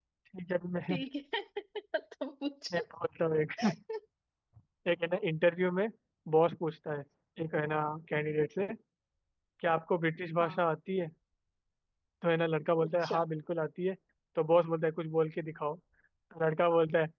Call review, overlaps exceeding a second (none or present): none